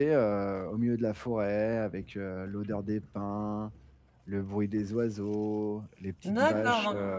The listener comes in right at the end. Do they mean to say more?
Yes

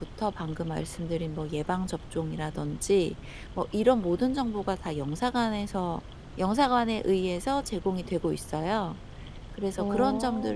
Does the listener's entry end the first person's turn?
No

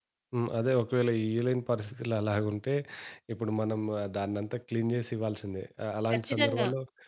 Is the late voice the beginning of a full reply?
No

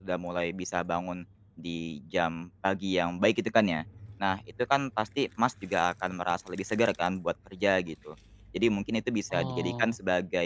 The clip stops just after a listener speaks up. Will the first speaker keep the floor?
Yes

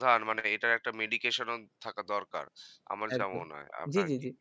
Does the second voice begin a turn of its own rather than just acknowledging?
Yes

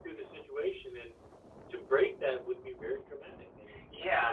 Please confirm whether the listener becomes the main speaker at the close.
Yes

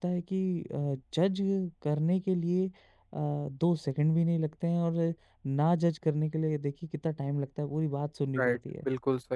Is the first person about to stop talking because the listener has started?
Yes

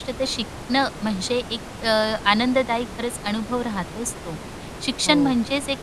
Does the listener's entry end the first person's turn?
No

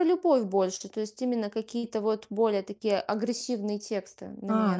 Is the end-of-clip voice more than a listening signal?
Yes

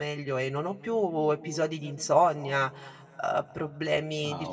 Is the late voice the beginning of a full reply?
No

